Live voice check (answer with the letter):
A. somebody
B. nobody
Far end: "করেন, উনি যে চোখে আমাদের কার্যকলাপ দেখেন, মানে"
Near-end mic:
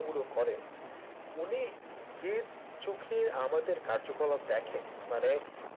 B